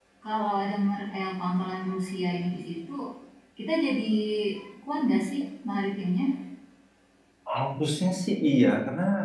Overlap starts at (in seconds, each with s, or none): none